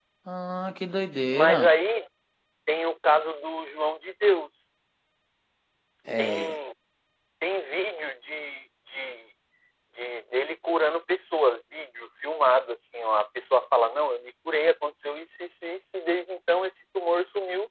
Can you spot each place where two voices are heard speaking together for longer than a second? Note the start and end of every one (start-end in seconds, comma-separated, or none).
none